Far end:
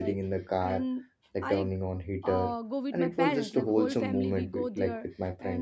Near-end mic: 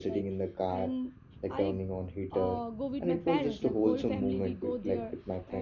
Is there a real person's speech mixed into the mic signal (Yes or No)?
No